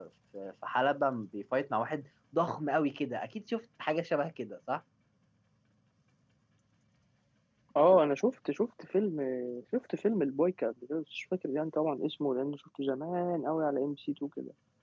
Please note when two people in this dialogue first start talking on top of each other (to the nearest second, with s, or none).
none